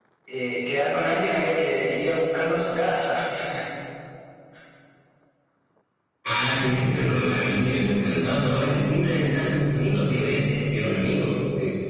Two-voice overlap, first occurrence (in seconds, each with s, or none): none